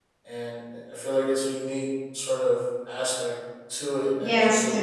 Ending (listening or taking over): taking over